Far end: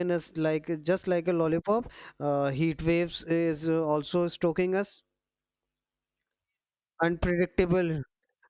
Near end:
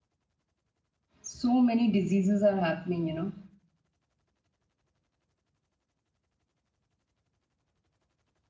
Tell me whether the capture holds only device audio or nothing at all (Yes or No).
No